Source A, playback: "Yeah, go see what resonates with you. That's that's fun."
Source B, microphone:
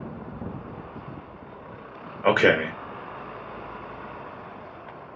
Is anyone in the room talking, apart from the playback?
Yes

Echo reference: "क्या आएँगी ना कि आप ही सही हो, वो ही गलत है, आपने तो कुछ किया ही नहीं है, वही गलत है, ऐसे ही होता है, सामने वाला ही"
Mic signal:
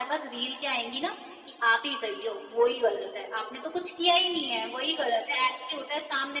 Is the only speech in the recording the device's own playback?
Yes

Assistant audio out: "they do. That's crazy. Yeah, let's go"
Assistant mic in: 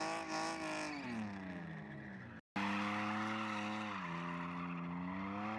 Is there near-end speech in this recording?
No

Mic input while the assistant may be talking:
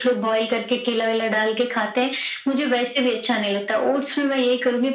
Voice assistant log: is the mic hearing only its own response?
Yes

